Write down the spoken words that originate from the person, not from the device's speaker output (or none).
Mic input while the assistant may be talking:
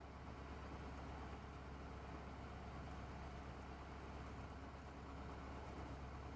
none